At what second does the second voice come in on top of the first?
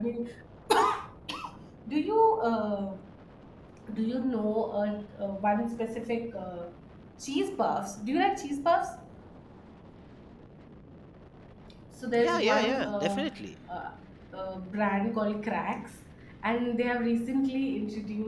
12.1 s

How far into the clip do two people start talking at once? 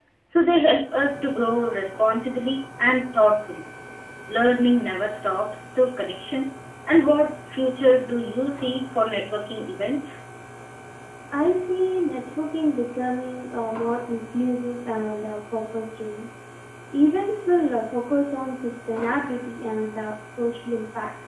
none

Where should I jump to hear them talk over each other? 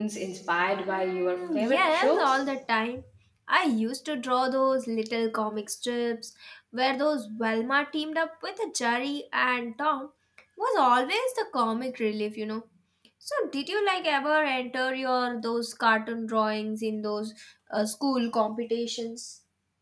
0.9 s

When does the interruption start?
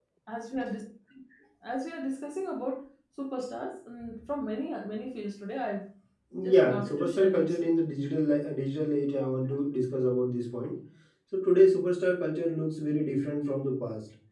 6.5 s

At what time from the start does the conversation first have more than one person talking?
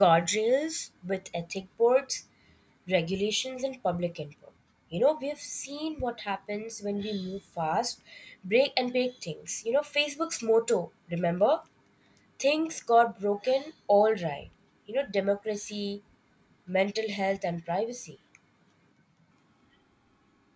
none

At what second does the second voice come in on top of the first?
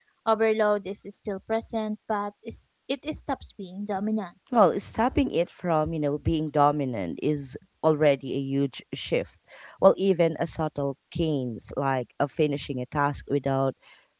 none

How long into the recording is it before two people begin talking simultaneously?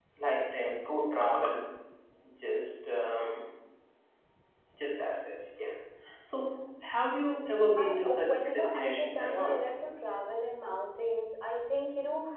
7.8 s

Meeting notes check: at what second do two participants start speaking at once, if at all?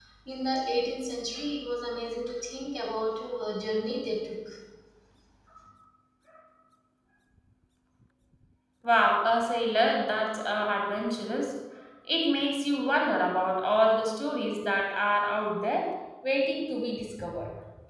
none

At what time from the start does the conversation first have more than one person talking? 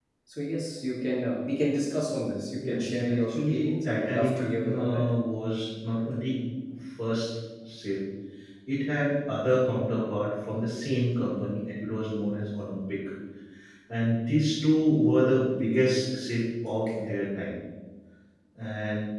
2.6 s

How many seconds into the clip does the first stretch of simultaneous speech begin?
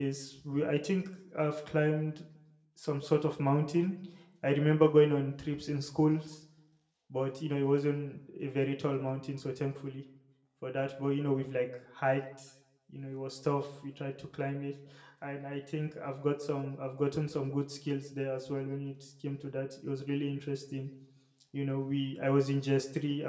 none

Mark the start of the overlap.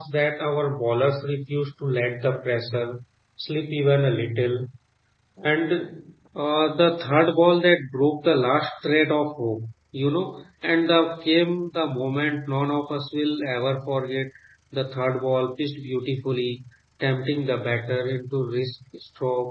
none

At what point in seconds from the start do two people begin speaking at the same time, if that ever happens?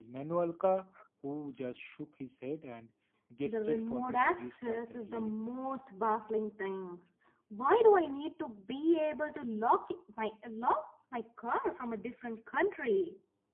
3.5 s

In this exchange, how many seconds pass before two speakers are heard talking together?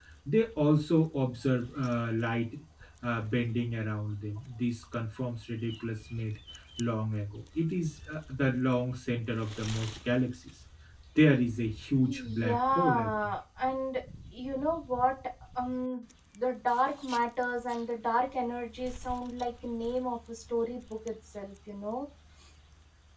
12.0 s

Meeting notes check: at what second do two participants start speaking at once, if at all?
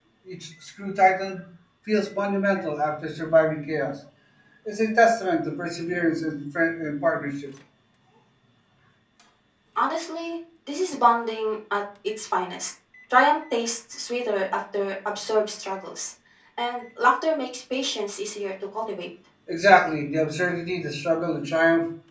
none

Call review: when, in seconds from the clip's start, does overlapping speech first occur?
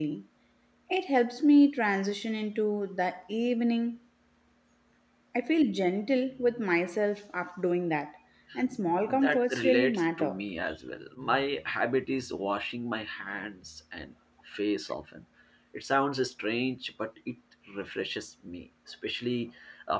9.1 s

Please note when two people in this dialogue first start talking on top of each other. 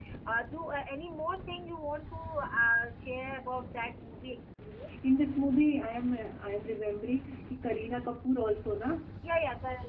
none

